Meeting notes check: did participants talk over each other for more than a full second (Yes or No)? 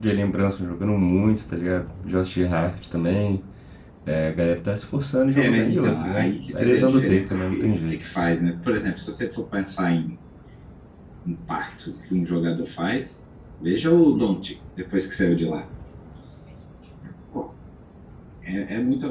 Yes